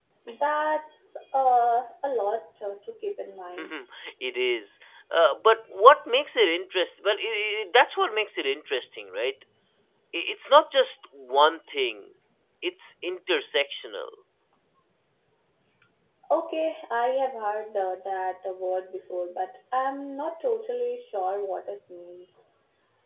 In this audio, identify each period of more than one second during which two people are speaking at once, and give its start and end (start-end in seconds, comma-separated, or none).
none